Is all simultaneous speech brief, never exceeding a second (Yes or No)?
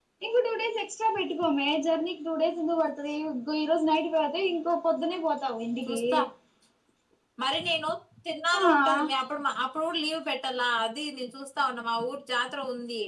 Yes